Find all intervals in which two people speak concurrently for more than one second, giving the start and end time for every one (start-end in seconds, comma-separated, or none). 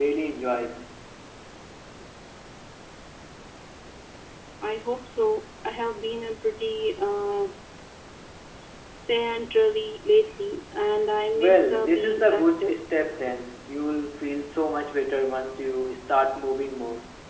11.3-12.8